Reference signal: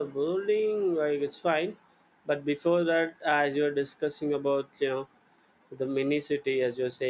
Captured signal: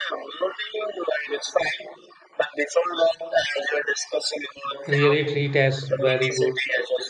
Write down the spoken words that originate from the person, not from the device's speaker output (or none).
really treat us very good.